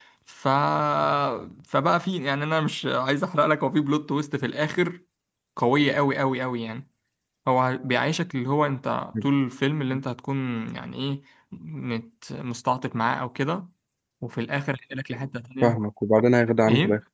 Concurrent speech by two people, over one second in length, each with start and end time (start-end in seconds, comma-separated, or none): none